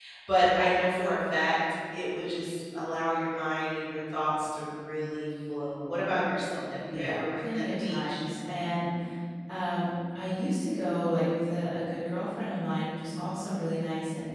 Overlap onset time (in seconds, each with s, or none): 6.9 s